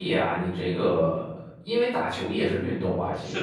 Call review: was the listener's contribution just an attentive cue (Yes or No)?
No